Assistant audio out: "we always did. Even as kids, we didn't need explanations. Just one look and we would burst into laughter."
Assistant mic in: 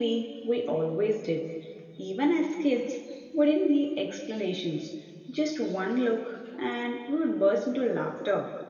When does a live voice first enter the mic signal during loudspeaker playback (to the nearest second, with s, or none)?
none